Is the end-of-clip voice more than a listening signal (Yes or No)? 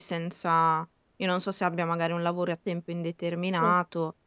No